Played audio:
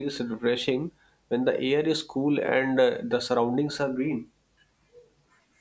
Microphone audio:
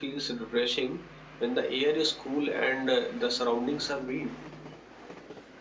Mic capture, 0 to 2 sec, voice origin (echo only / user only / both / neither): echo only